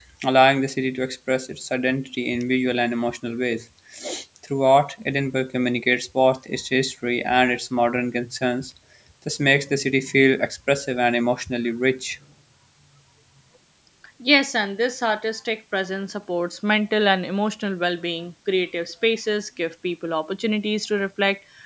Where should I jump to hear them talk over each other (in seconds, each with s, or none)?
none